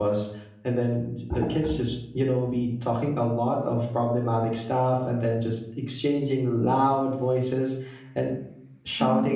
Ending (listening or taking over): listening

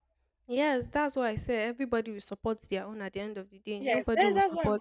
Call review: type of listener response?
taking over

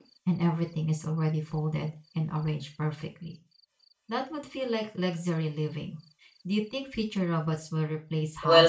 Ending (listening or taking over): taking over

